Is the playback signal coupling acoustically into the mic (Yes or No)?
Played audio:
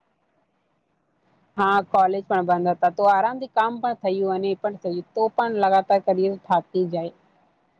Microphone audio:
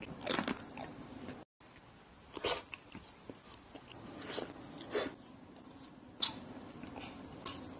No